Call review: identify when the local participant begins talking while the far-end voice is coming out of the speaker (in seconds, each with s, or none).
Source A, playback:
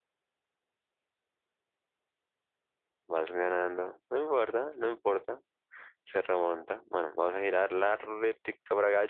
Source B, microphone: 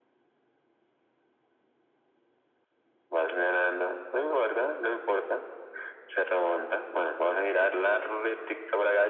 none